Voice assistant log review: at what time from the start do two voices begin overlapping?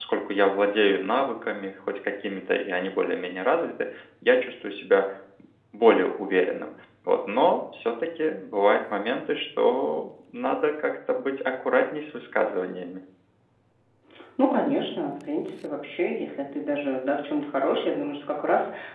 none

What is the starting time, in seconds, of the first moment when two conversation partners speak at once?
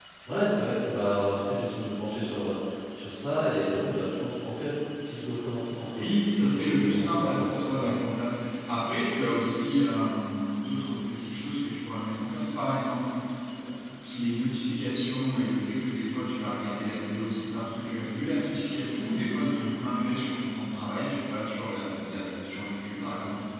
6 s

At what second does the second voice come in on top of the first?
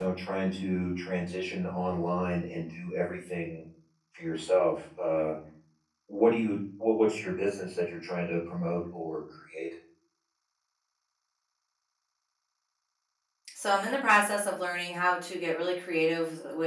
none

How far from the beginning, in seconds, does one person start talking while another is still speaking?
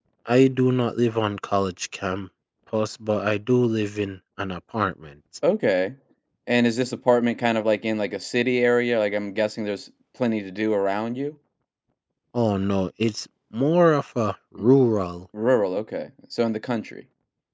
none

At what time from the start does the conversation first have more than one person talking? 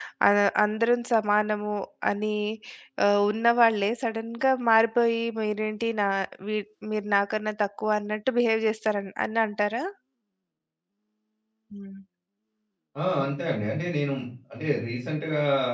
none

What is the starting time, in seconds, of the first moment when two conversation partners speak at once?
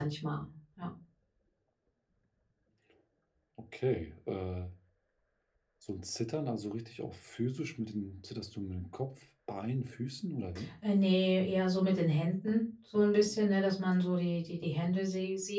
none

